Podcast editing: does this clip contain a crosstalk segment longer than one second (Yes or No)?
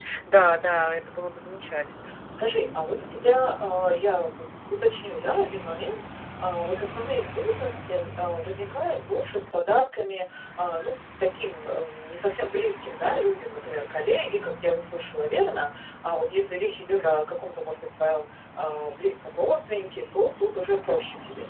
No